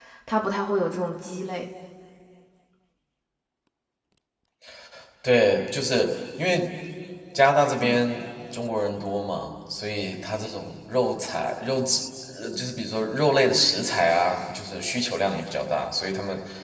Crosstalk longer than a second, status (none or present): none